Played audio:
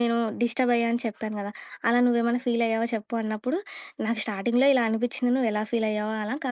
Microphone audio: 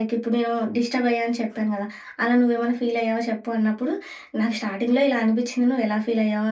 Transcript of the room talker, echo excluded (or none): none